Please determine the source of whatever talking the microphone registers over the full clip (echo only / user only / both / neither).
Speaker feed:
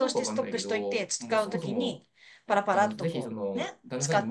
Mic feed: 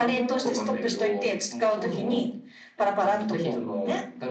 echo only